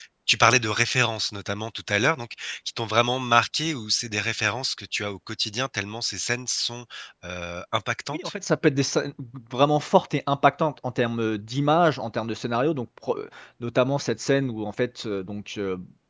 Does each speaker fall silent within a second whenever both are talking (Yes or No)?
Yes